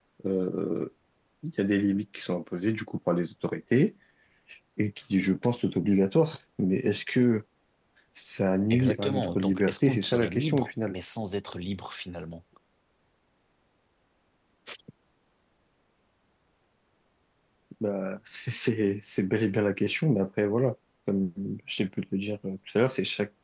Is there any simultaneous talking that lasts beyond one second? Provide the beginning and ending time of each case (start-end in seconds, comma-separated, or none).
8.7-10.9